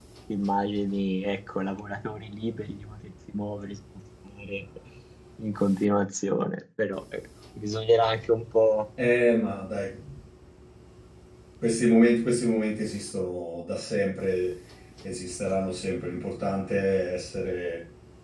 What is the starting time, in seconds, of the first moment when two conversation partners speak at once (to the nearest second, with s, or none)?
none